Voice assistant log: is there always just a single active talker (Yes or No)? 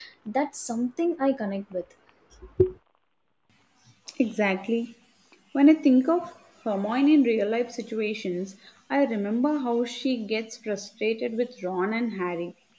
Yes